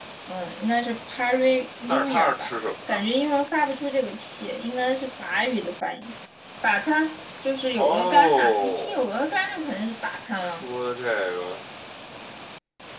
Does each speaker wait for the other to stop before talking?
No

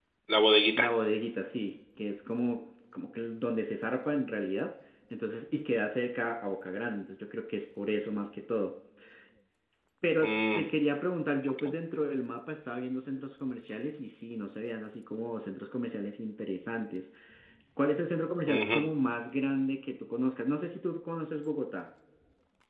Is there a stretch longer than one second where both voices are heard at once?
No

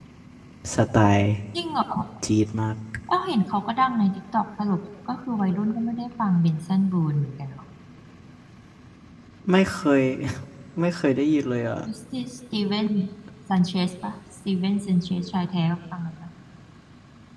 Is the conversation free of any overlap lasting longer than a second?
Yes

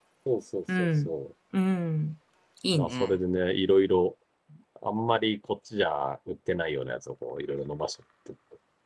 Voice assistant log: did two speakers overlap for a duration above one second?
No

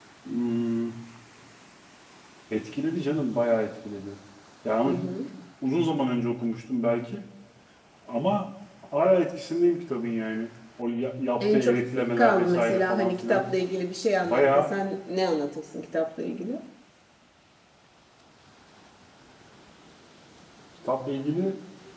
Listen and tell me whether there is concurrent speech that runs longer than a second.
Yes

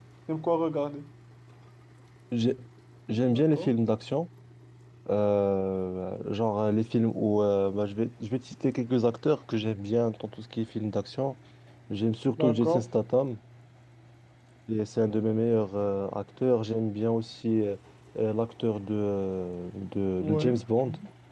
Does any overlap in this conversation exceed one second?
No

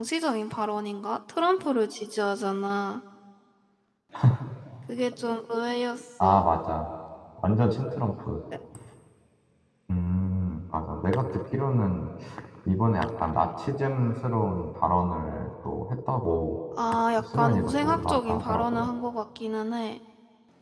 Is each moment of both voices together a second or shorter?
No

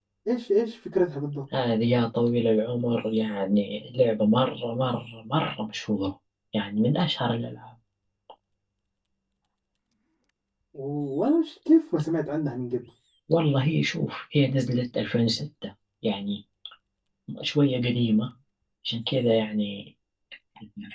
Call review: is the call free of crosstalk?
Yes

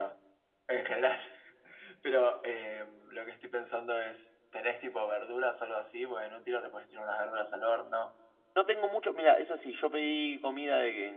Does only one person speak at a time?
Yes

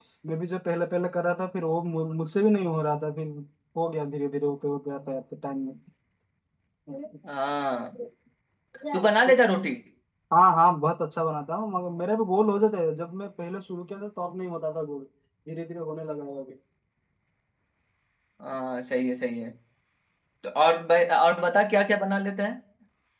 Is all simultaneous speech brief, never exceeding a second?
Yes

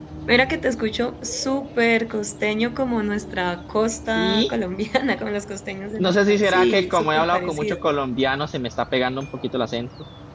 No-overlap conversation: No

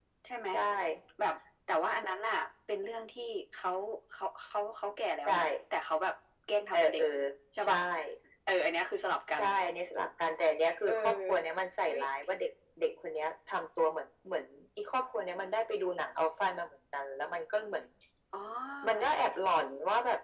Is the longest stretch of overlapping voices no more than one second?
Yes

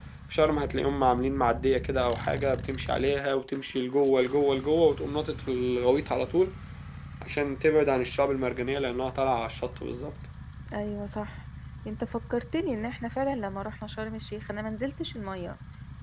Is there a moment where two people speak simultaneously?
No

